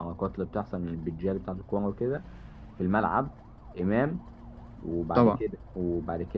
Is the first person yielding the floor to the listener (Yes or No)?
No